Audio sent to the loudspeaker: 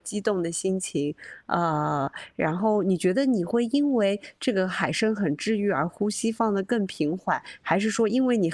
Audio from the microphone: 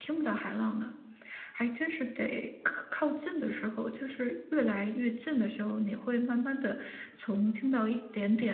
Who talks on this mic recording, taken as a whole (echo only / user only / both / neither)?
user only